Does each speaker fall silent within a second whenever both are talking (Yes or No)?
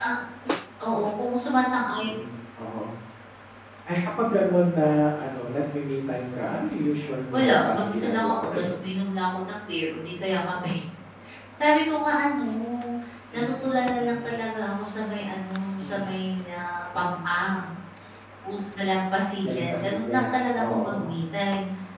No